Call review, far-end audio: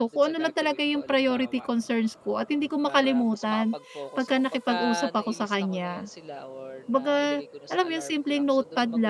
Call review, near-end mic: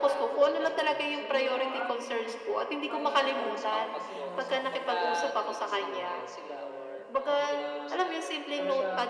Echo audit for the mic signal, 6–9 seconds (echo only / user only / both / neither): both